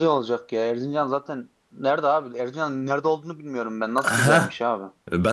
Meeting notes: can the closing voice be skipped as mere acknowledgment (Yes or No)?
No